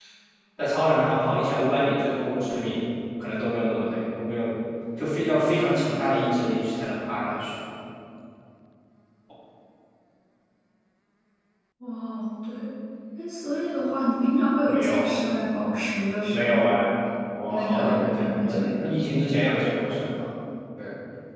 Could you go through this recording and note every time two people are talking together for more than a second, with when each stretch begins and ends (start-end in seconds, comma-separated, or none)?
17.5-19.0